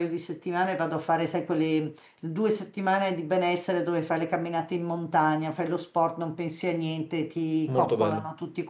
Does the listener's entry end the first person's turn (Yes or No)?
No